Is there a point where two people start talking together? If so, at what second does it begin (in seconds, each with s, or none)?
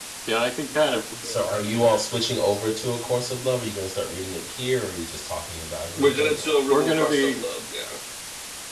6.0 s